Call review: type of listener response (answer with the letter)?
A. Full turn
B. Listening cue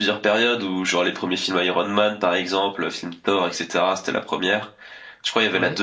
B